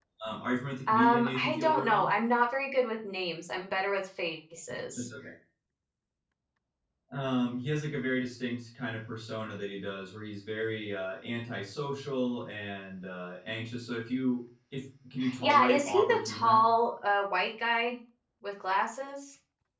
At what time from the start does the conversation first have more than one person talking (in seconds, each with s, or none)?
0.9 s